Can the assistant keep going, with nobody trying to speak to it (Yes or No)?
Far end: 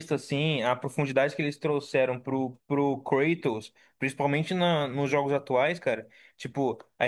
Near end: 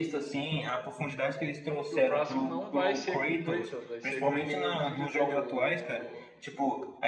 No